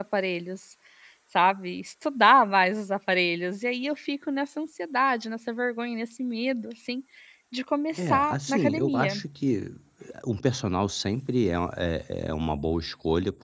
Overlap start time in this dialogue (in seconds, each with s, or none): 7.9 s